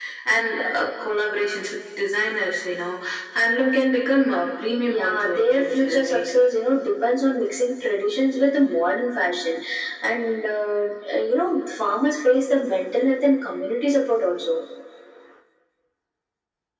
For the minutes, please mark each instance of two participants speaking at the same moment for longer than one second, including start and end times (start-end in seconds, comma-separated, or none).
4.8-6.3